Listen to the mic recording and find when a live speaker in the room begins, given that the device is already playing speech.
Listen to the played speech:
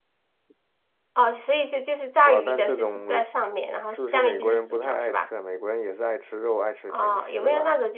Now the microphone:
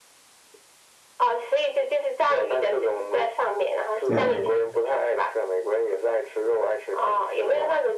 4.0 s

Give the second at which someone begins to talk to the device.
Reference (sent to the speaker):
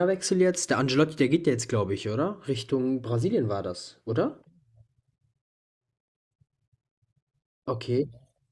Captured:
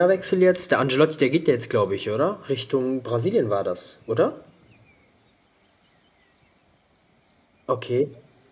none

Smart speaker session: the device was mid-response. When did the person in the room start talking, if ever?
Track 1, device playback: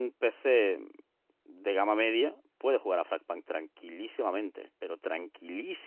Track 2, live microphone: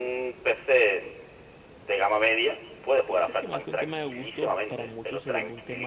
3.0 s

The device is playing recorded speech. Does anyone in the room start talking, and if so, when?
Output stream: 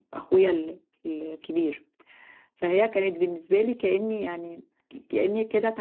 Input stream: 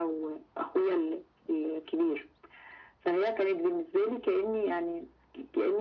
none

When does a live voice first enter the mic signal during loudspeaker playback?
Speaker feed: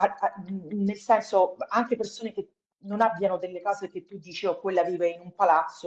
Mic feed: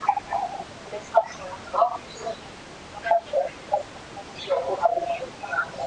none

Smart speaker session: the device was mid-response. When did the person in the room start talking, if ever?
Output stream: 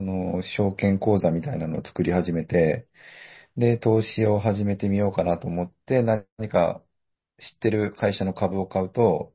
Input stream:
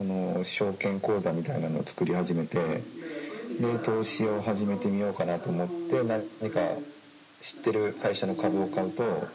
2.6 s

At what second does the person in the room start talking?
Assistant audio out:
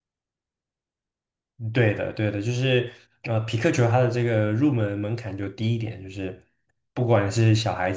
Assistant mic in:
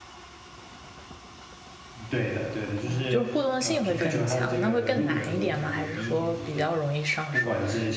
2.8 s

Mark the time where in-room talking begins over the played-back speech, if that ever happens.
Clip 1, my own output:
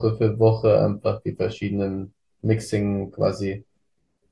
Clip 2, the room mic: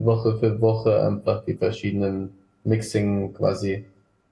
none

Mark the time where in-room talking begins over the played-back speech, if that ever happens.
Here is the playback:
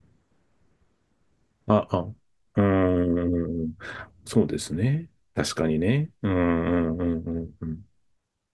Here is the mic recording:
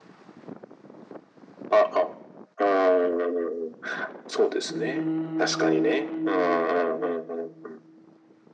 4.7 s

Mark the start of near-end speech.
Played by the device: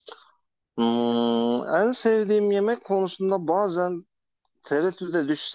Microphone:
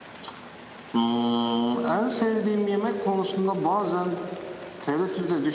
none

